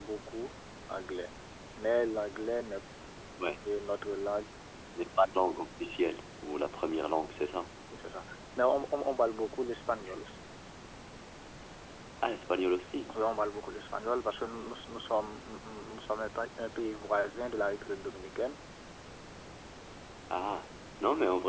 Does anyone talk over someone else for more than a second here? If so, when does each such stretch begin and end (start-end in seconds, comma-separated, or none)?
none